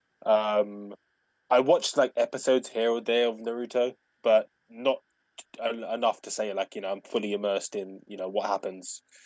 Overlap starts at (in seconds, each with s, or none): none